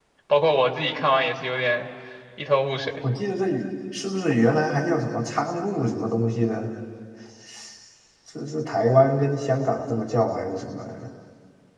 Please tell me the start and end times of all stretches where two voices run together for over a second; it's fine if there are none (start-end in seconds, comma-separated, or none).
none